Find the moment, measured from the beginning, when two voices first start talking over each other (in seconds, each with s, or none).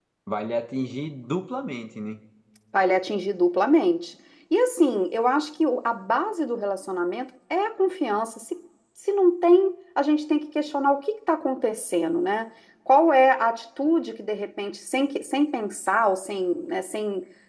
none